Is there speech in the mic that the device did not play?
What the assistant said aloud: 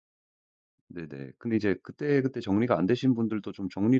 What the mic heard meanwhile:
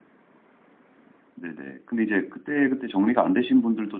No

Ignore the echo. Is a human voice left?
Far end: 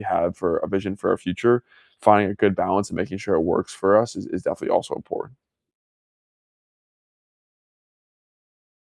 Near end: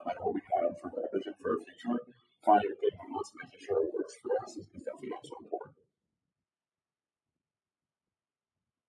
No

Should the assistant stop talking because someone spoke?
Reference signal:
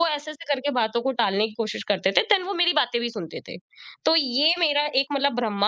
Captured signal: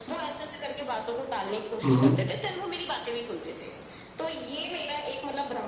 Yes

